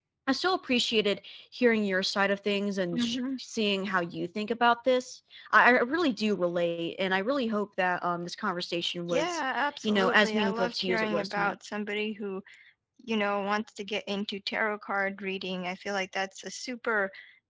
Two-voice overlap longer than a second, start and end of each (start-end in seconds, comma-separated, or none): 9.8-11.6